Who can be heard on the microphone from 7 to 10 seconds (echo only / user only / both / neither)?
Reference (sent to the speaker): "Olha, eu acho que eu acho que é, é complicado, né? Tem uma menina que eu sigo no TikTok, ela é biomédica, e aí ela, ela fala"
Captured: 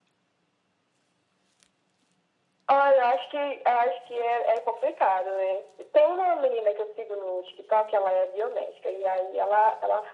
echo only